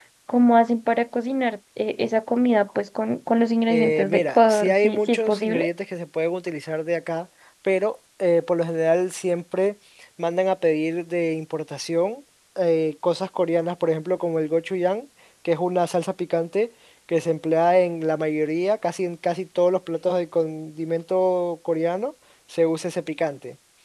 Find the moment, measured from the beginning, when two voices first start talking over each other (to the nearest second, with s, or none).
4 s